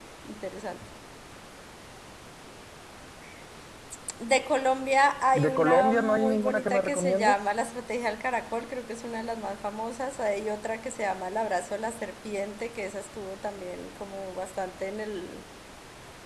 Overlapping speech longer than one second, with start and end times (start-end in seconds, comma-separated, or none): 5.3-7.3